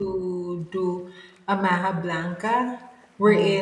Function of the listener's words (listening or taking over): listening